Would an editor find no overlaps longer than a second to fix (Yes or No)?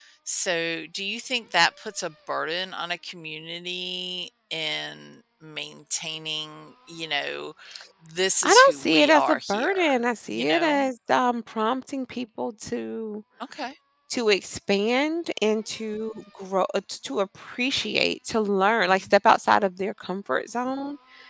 No